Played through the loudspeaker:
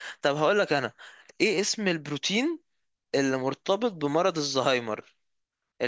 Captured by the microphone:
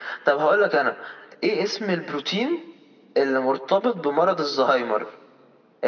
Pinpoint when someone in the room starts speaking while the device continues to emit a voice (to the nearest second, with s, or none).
none